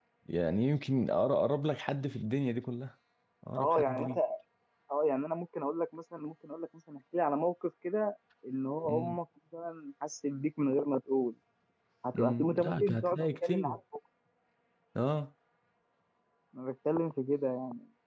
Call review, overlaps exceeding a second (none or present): present